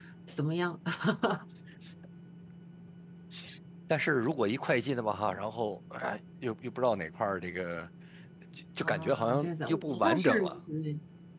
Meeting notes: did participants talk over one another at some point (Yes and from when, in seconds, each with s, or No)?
Yes, from 8.8 s